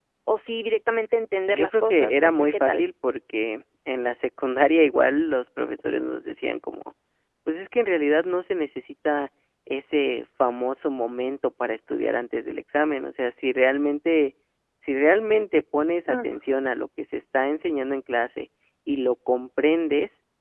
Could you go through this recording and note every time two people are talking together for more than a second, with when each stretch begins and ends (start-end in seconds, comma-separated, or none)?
1.5-2.8